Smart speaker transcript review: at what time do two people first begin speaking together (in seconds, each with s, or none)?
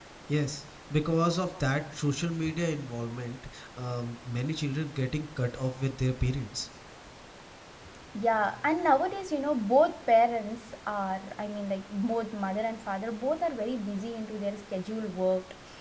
none